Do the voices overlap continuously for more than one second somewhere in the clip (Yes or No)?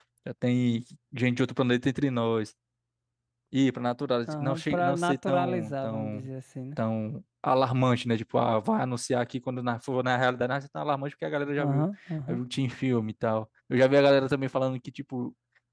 Yes